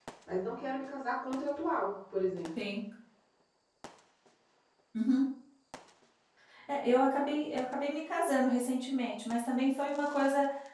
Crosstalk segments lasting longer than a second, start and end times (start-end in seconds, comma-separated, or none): none